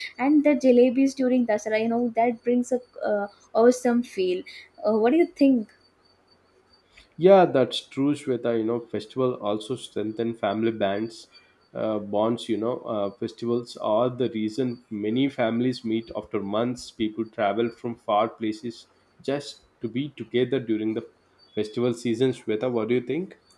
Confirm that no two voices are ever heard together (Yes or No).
Yes